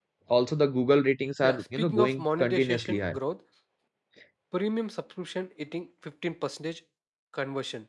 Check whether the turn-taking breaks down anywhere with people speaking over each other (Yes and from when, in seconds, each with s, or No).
Yes, from 1.4 s